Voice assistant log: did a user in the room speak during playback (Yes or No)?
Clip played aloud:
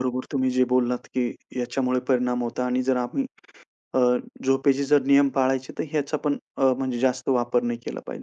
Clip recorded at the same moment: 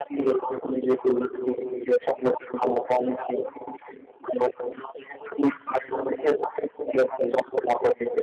No